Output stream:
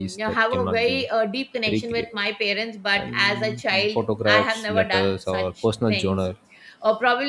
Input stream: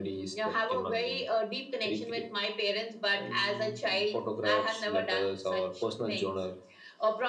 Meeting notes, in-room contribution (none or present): none